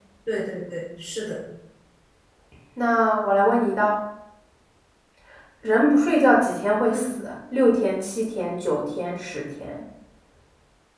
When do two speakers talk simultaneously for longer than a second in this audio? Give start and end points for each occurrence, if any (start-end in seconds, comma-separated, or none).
none